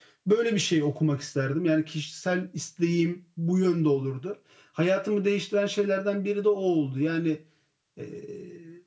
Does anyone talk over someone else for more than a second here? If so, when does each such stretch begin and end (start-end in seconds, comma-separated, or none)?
none